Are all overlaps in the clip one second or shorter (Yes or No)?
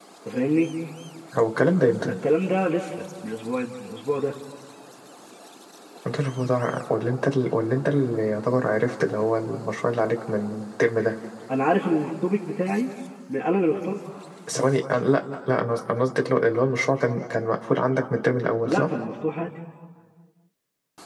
Yes